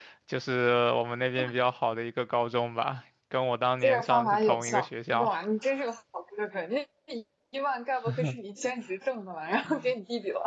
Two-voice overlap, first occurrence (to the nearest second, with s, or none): 4 s